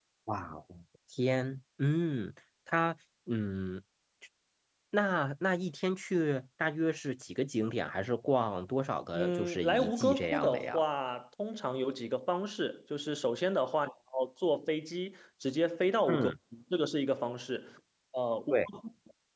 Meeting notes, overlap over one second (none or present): present